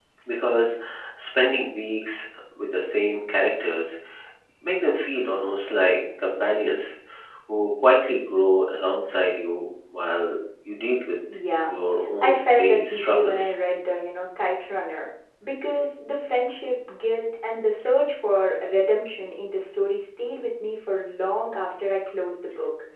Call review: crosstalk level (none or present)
present